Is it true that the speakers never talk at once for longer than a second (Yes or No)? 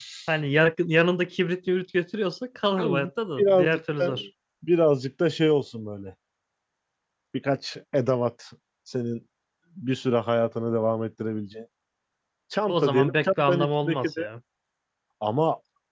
No